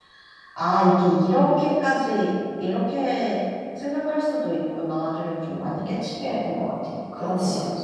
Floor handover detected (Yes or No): Yes